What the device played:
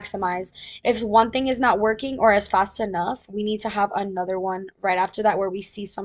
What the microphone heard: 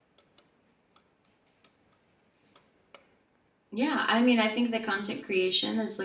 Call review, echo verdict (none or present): none